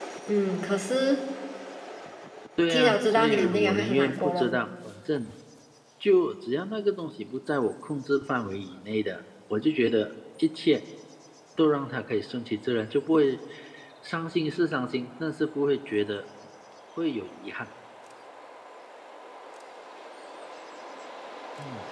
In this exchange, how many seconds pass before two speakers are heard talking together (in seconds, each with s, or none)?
2.7 s